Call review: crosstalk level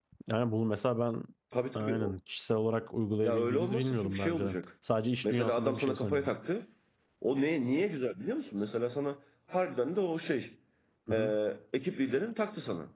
present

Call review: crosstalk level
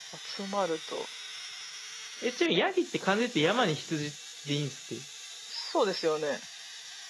none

